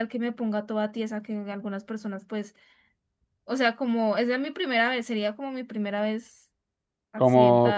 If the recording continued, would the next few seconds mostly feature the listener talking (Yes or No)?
Yes